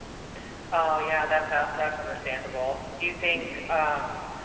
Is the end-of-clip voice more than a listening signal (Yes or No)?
No